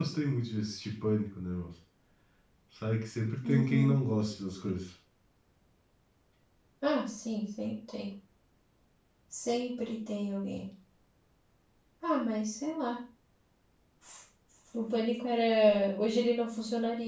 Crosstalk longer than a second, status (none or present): none